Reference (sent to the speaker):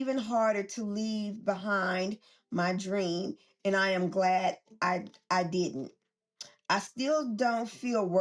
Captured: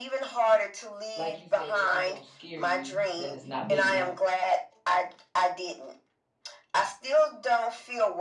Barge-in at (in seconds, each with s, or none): 1.1 s